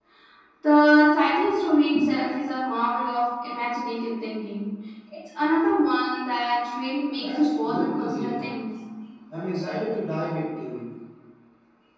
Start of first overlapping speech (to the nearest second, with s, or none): 7 s